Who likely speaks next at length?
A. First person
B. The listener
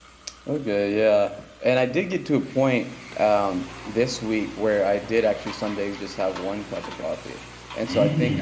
A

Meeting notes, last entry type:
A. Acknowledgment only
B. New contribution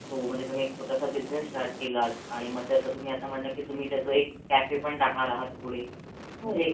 A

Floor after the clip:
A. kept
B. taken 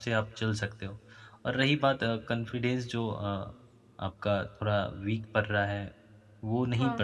A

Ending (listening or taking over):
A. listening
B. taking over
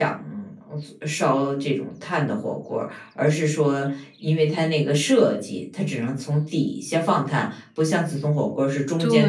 B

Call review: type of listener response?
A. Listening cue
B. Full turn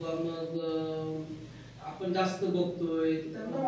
A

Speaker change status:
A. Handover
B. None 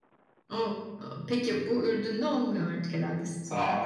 A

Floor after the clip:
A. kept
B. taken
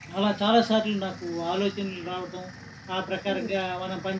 A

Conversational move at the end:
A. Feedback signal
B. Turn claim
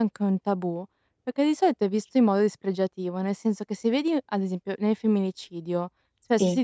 A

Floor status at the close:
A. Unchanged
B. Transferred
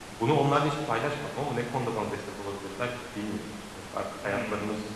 A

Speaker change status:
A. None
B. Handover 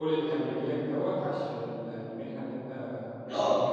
B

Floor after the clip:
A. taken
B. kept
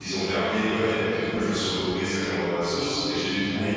B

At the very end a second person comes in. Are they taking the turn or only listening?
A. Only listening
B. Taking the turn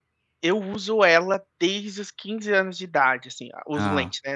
A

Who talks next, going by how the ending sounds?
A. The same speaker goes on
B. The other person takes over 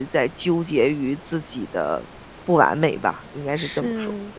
B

